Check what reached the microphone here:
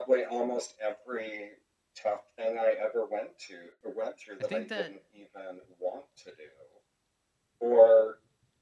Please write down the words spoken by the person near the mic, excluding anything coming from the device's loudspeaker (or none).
I think that